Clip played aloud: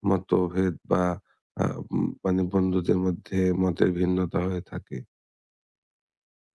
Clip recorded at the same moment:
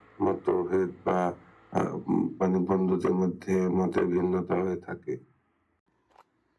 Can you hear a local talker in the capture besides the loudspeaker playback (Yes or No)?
No